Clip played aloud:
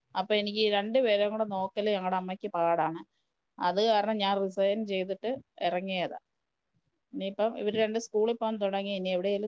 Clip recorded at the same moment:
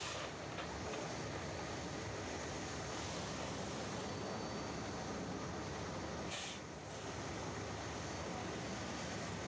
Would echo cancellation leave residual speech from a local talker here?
No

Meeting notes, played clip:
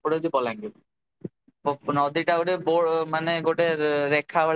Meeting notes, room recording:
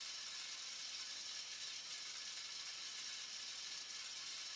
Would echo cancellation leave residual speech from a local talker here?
No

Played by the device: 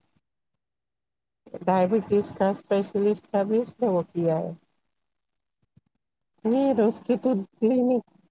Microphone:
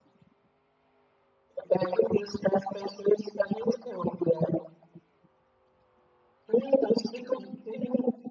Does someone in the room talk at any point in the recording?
No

